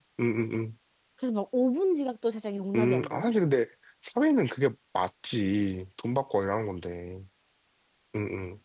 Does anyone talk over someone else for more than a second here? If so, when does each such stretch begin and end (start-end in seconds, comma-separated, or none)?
none